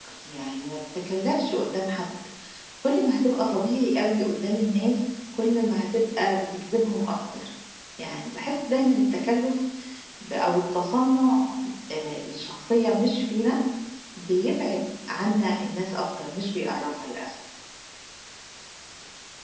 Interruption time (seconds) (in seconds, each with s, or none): none